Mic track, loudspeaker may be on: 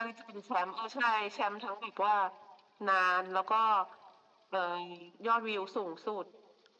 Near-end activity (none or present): none